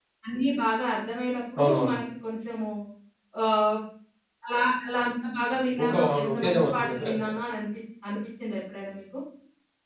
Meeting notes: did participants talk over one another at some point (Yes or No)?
Yes